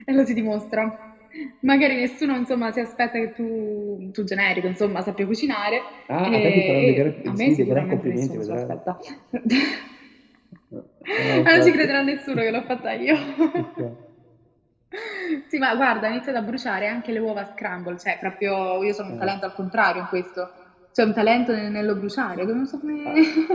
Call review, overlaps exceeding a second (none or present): present